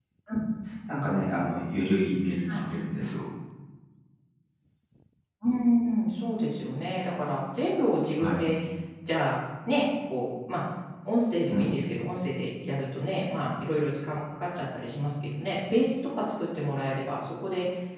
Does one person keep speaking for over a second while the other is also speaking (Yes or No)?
No